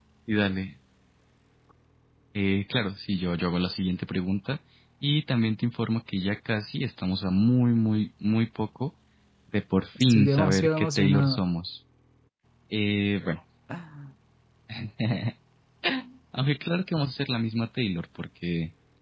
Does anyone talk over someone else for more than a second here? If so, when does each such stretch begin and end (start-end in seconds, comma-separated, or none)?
10.0-11.4